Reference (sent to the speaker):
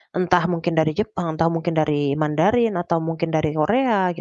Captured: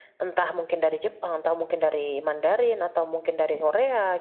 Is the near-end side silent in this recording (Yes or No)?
Yes